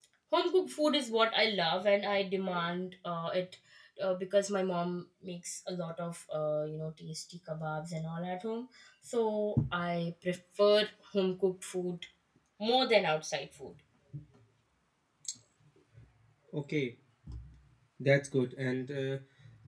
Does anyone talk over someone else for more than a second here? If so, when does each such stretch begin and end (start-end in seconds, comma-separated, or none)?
none